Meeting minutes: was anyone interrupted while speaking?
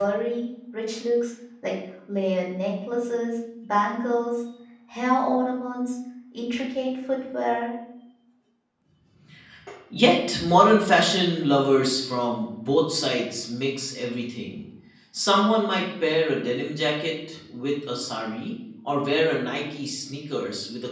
No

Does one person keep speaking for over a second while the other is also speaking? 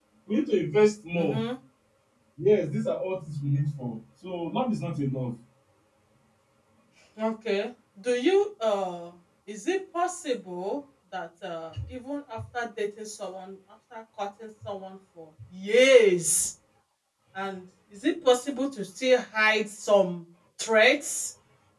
No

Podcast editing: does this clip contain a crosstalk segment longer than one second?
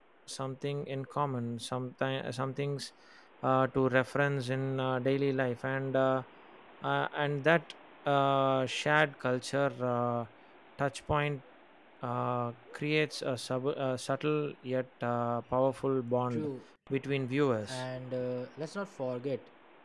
No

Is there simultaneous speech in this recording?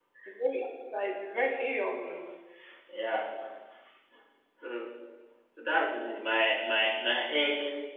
No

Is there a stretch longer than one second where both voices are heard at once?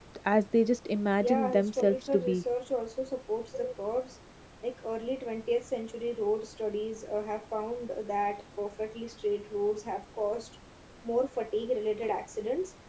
Yes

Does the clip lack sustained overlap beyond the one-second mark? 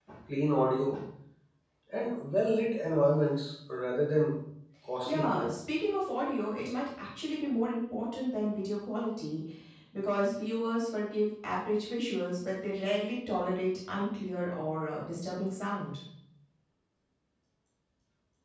Yes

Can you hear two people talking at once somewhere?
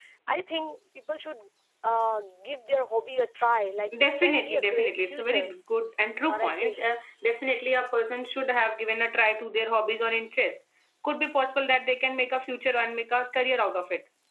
Yes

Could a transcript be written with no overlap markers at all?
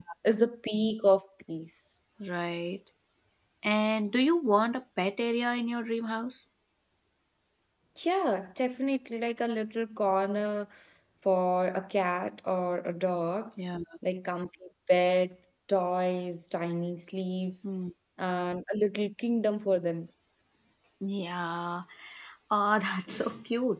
Yes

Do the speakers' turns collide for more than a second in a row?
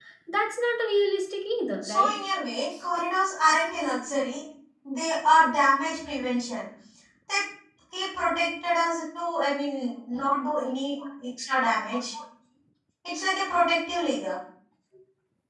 No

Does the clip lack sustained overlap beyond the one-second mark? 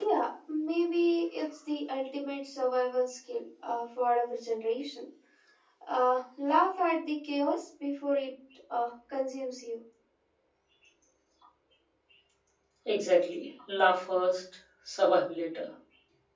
Yes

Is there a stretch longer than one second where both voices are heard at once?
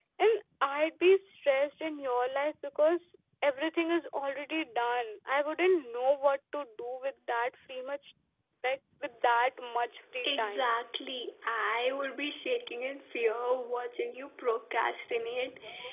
No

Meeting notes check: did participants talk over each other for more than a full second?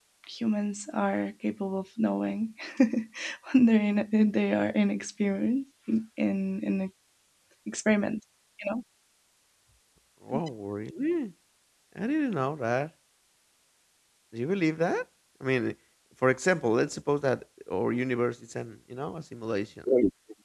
No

